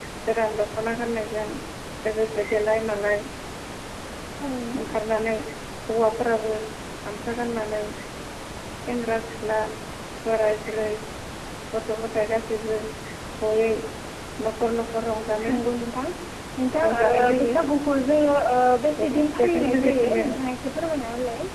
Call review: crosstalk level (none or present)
present